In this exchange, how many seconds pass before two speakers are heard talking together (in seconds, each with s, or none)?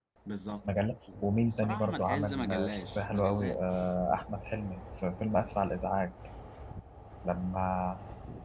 1.2 s